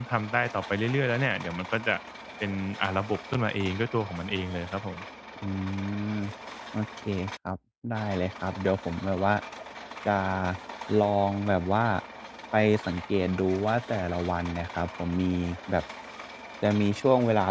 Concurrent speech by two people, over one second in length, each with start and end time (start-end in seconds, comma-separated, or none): none